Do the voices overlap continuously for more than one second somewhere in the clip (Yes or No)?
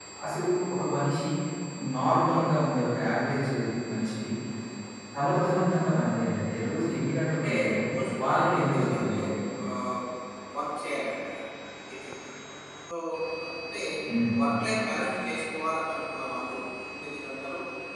Yes